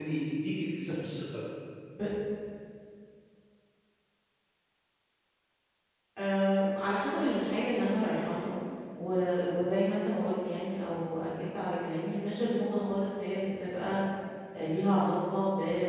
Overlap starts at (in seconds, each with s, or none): none